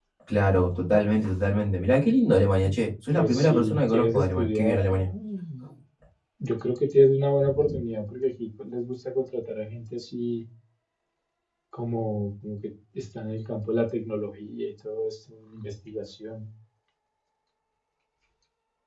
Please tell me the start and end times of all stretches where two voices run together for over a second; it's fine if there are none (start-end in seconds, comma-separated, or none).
3.1-5.0